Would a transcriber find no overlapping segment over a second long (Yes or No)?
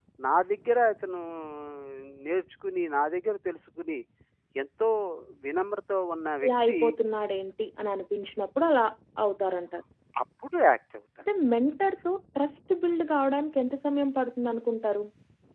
Yes